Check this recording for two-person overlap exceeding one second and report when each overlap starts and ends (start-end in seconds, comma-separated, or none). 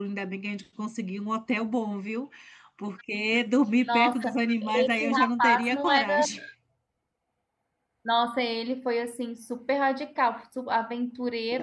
3.9-6.1